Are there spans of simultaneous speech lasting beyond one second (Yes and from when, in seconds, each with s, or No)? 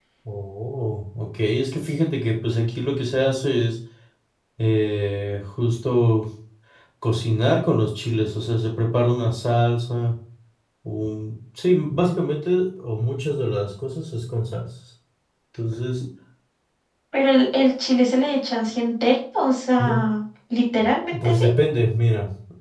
No